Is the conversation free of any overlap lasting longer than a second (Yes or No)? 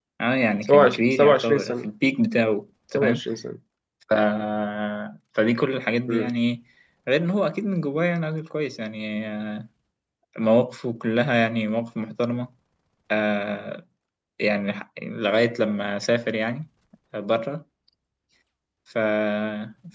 No